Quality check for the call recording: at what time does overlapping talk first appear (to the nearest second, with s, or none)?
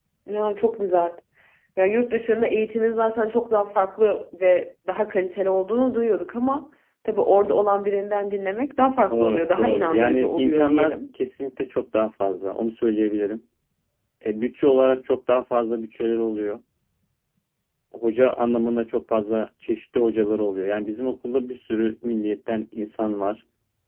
9 s